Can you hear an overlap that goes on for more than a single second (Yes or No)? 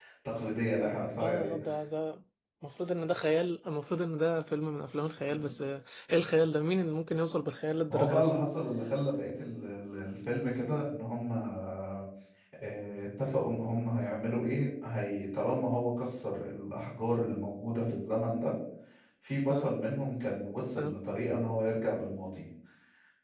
No